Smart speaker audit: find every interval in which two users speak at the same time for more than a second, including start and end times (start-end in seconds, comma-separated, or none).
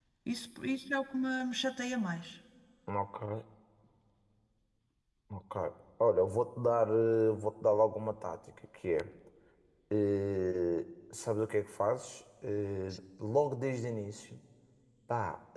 none